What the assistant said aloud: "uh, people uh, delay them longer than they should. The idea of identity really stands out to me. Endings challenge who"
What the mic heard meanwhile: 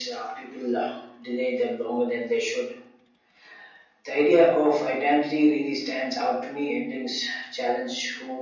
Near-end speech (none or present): none